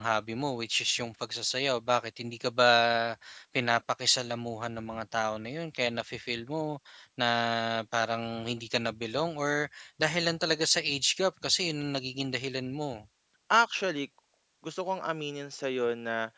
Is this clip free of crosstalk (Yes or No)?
Yes